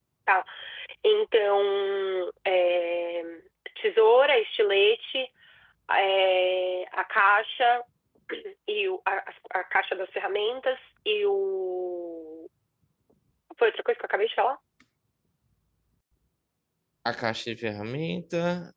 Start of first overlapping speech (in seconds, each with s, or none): none